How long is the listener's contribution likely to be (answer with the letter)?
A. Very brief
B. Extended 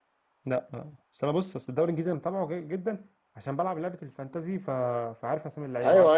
B